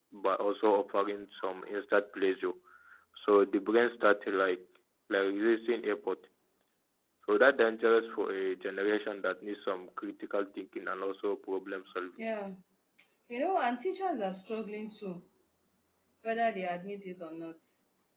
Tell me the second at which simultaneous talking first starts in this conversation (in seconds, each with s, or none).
none